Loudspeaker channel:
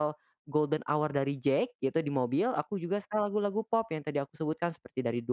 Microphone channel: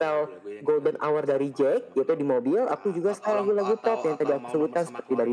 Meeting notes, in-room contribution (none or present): present